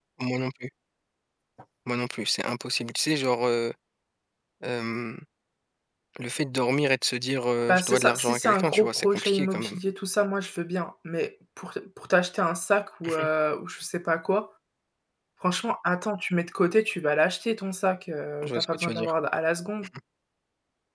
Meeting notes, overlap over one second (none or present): present